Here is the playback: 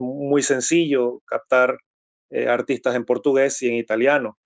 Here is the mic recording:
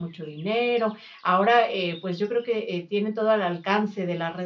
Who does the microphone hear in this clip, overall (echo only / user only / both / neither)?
user only